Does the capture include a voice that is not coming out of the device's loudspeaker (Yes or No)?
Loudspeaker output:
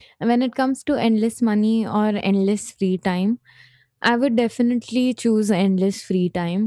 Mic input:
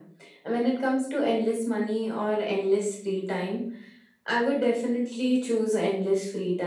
No